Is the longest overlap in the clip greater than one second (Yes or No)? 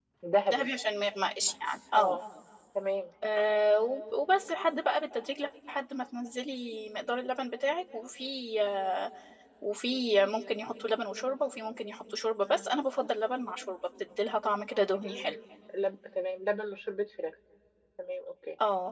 No